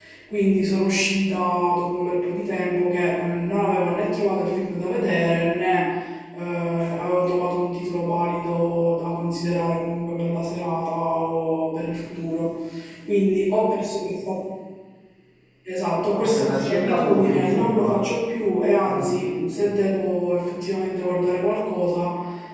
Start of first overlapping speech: 16.1 s

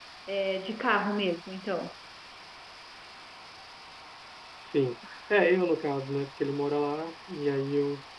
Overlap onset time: none

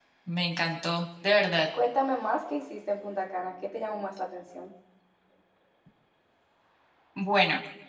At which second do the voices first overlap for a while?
none

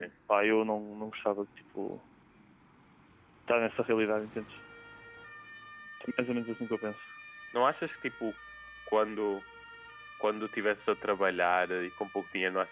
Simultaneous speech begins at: none

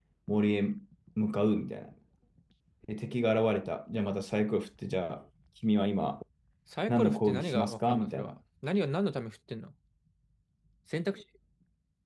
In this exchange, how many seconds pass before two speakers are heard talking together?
6.9 s

